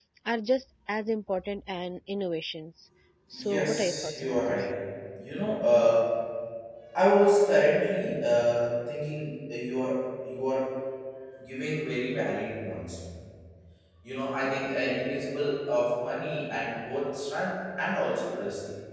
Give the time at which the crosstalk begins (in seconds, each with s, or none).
3.4 s